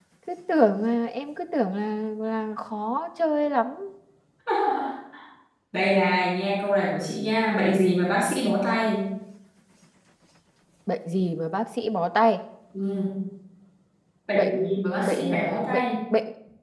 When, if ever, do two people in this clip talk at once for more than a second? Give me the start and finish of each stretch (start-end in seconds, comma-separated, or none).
14.3-15.8